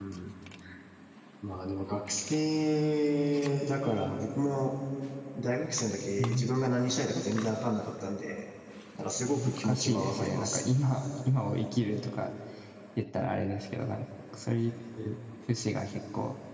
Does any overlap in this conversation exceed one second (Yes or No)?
Yes